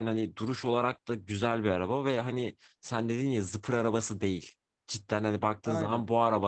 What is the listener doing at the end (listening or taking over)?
listening